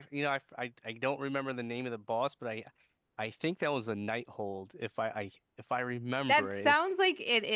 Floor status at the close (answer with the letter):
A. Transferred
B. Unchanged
A